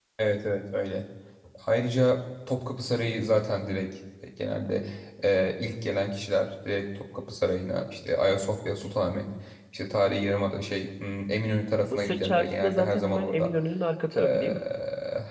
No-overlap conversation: No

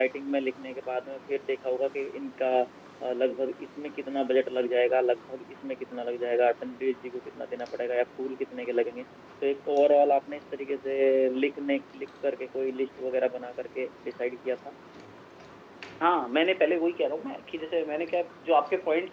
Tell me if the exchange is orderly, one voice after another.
Yes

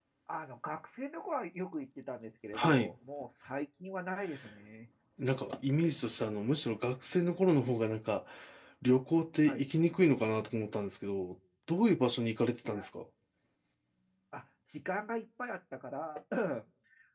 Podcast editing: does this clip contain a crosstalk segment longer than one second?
No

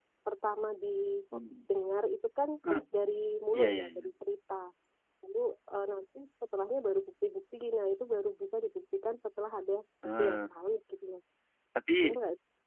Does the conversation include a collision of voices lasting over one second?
No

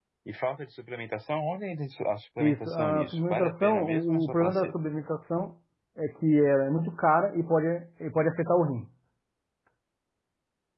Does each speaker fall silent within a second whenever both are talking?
No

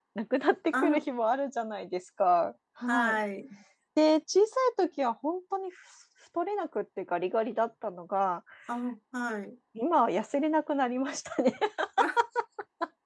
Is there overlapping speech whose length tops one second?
No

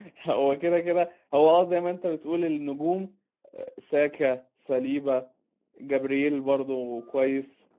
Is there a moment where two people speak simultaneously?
No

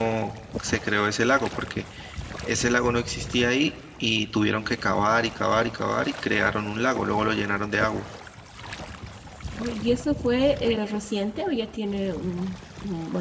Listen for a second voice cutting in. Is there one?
No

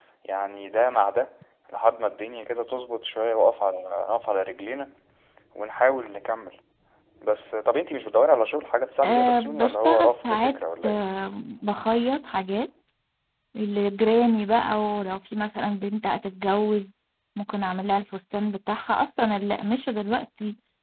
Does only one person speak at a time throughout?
No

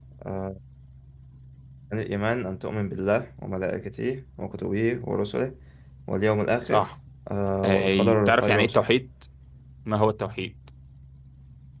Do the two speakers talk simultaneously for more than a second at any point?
Yes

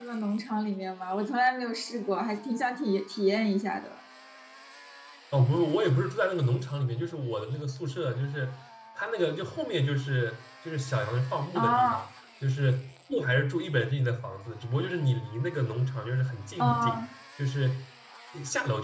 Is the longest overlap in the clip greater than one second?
No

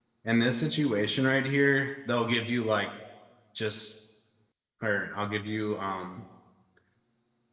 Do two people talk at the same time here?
No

